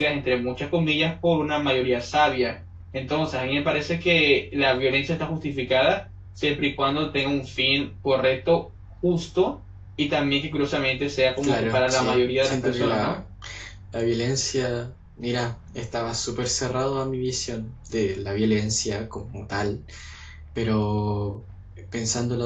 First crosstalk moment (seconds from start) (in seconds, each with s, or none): 11.4 s